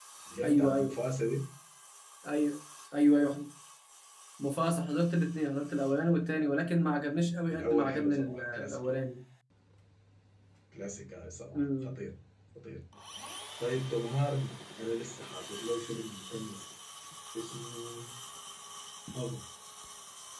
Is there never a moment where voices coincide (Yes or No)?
No